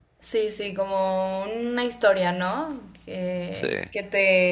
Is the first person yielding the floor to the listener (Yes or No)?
No